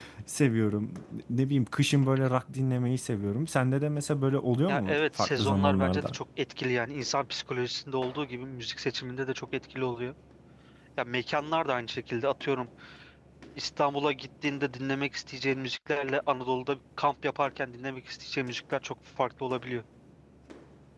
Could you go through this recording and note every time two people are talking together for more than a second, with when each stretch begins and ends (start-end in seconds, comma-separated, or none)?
4.7-6.2